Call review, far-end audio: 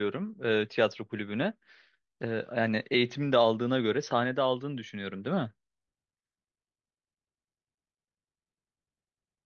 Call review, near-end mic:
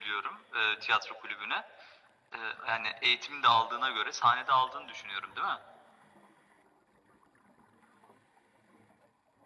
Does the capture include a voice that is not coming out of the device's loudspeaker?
No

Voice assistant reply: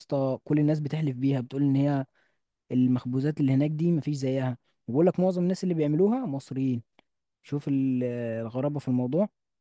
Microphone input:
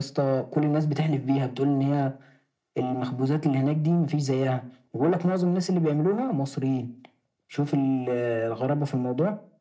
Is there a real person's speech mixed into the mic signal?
No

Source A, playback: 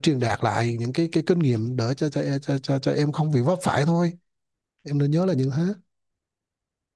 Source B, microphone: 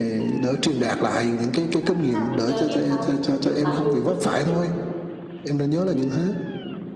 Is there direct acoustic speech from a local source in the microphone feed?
Yes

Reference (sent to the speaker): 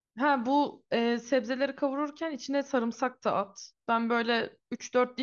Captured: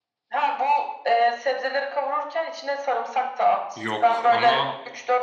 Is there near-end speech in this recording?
Yes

